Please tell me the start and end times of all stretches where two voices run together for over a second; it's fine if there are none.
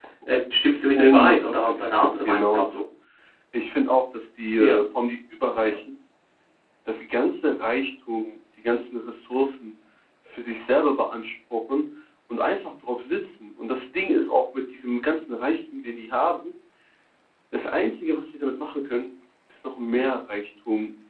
1.0-2.8

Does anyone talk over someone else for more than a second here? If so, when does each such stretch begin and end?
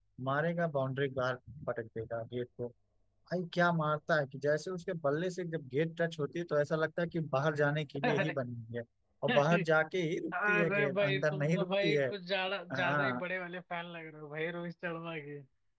10.5-12.0

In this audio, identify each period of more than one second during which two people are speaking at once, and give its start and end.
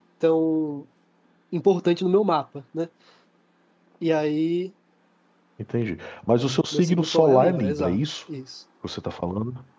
6.7-8.0

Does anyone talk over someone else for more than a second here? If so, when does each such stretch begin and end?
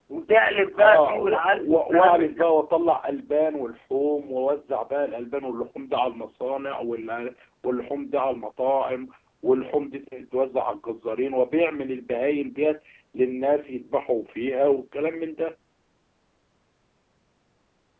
0.8-2.5

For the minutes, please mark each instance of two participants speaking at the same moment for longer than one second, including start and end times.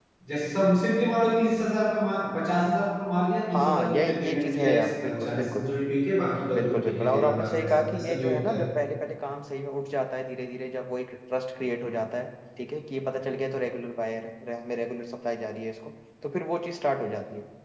3.5-5.6, 6.5-8.6

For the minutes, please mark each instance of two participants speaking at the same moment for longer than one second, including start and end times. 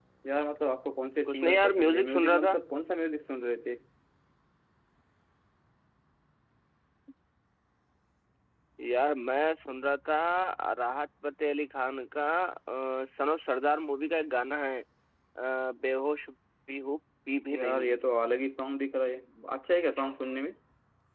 1.3-2.6

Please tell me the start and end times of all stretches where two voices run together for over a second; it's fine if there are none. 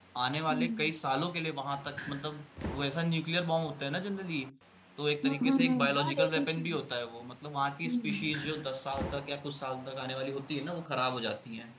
5.2-6.8

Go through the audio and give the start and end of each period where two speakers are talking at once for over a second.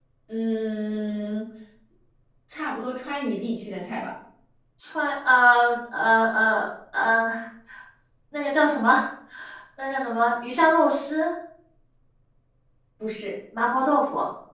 none

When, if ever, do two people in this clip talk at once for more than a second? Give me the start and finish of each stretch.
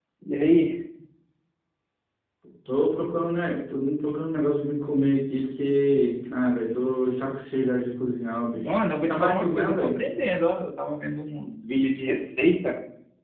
8.5-9.9

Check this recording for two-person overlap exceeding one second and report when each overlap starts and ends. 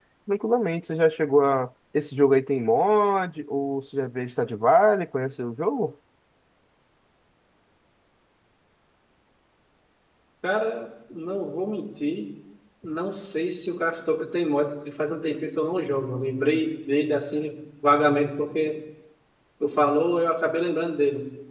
none

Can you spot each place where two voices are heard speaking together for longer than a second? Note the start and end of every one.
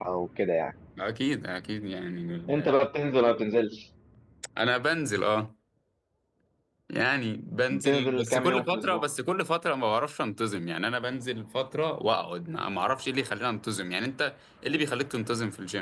7.7-9.1

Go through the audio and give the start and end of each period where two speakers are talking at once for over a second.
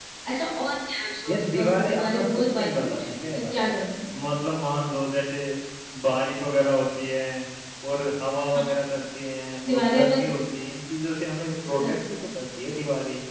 1.3-2.9

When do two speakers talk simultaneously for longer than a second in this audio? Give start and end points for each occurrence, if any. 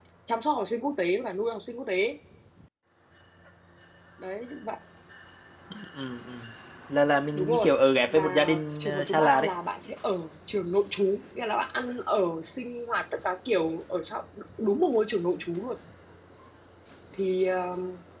8.1-9.5

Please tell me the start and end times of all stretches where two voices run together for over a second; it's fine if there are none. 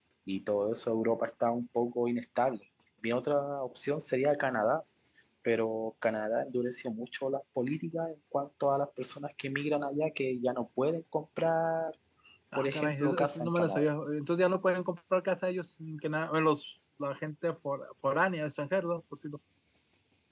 12.6-13.8

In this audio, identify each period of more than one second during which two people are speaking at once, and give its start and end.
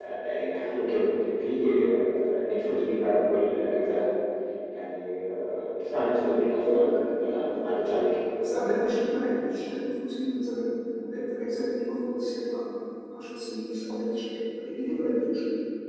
6.4-7.8

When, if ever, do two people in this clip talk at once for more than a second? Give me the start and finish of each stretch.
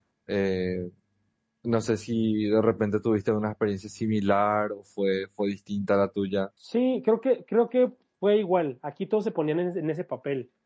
none

